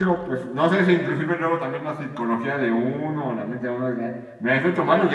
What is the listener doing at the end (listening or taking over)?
listening